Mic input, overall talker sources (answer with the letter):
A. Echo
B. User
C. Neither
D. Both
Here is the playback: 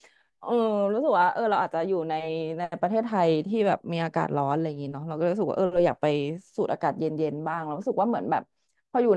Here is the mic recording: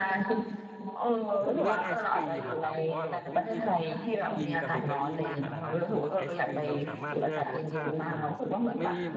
D